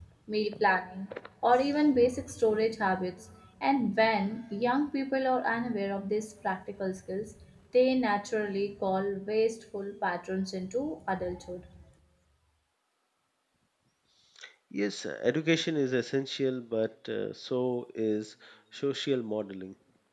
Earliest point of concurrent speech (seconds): none

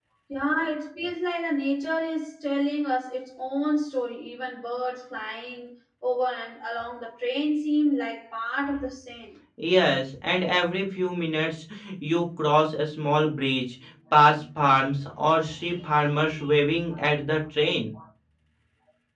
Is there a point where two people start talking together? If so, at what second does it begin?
none

